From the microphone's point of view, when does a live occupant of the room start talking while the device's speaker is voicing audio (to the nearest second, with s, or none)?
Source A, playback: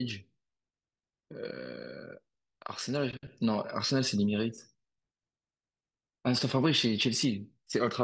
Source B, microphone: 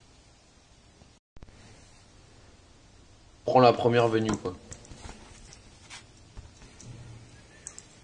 3 s